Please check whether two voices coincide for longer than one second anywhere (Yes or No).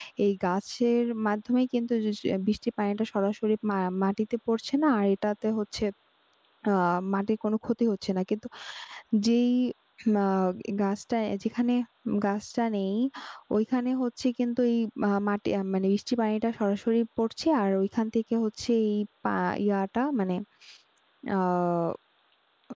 No